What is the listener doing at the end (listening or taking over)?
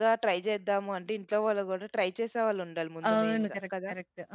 taking over